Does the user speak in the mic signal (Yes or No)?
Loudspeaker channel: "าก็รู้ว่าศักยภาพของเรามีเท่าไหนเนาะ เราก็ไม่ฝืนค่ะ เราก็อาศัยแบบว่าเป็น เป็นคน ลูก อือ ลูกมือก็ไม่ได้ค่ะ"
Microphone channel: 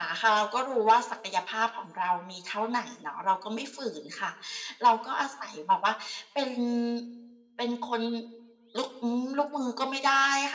No